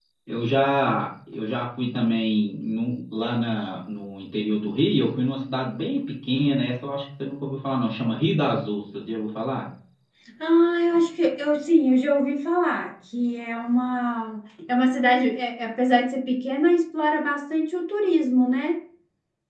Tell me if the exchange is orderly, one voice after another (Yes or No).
Yes